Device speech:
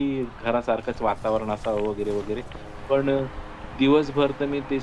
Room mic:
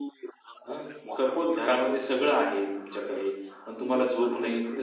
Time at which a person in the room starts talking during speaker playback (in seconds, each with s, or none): 0.7 s